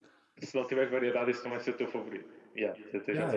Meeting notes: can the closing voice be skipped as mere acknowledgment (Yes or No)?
No